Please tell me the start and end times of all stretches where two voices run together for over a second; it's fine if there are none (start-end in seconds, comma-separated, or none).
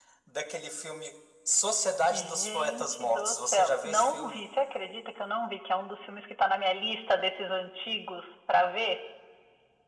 2.1-4.4